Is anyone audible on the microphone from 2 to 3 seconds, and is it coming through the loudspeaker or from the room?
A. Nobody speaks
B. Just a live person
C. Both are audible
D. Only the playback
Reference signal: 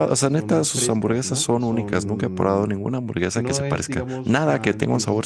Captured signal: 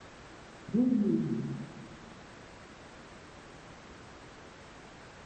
A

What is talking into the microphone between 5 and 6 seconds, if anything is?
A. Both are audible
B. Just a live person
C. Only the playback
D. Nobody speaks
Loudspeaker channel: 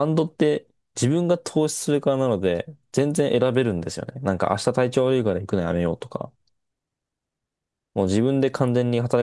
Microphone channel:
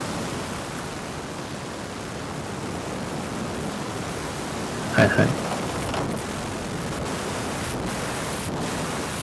B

